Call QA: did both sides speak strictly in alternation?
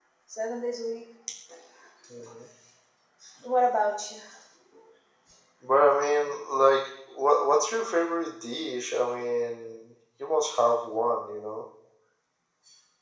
Yes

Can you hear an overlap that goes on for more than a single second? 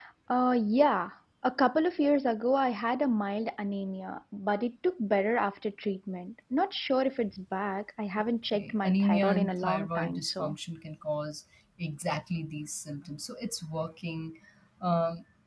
Yes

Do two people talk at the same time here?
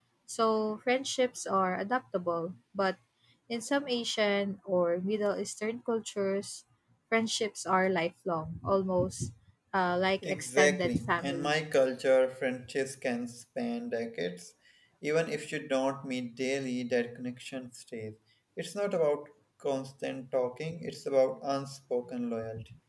Yes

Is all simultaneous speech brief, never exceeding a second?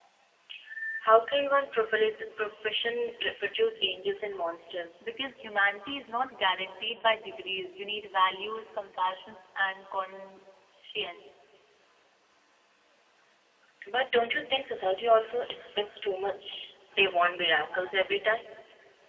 Yes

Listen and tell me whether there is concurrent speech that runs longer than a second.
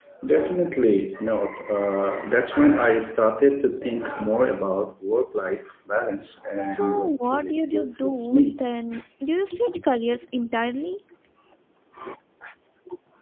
Yes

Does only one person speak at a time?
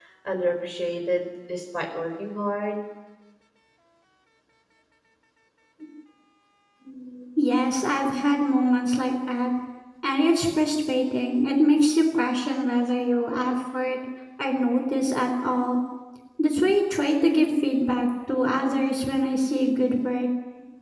Yes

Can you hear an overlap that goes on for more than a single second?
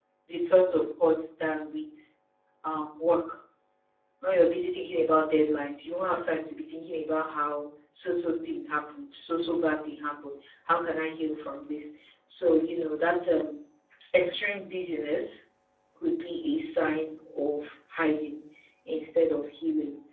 No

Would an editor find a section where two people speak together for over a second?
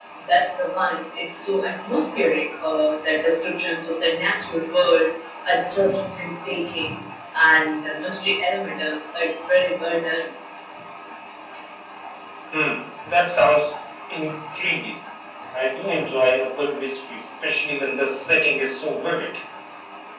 No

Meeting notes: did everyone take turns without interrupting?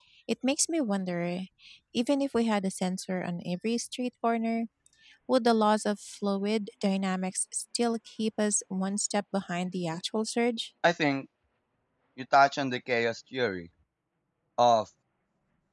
Yes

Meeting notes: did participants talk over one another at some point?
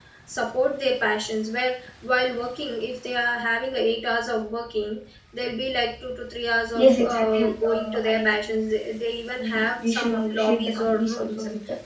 Yes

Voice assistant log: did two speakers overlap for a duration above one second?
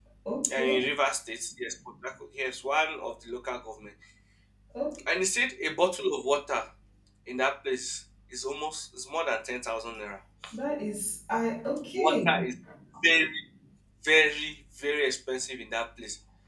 No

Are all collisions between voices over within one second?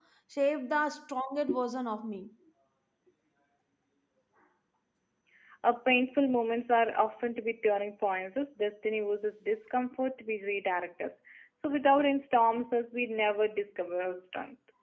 Yes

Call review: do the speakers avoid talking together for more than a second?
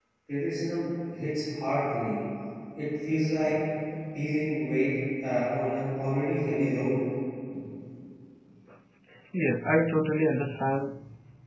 Yes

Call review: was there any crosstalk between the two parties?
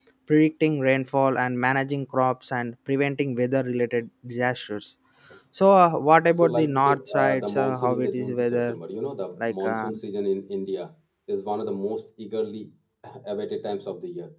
Yes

